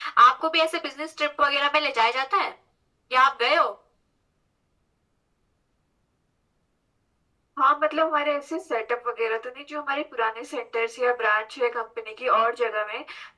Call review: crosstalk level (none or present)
none